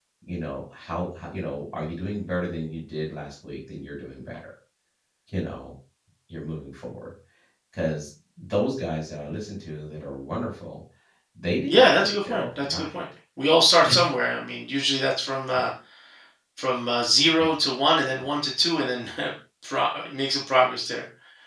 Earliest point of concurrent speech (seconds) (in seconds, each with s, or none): 11.7 s